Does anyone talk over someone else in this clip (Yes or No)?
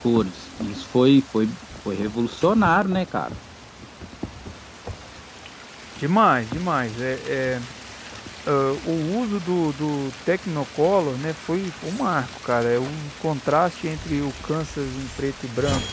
No